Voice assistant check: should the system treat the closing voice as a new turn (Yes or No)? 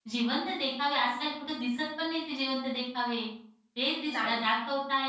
No